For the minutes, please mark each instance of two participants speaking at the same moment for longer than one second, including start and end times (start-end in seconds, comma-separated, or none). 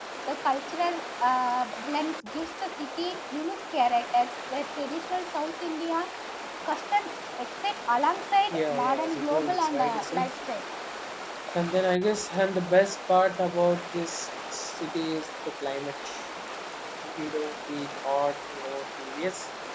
8.5-10.3